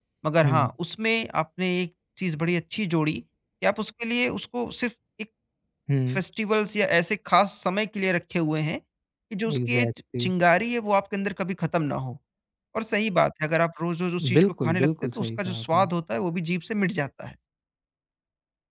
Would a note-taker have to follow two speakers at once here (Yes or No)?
Yes